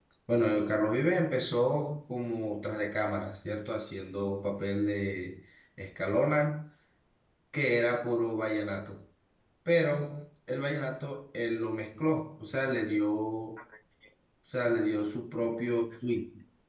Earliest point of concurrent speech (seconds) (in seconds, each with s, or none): none